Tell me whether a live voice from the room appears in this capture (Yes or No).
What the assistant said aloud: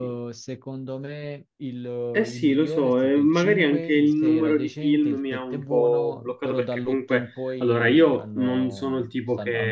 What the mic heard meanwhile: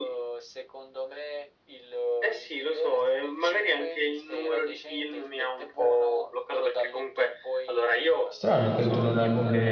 Yes